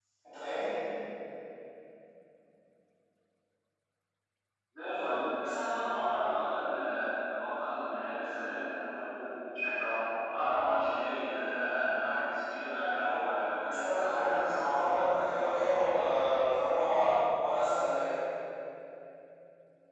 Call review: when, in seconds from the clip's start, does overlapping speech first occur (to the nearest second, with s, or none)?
14 s